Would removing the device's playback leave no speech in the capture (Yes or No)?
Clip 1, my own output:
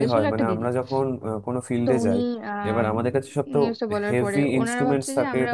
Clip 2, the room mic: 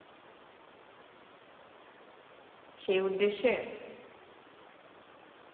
No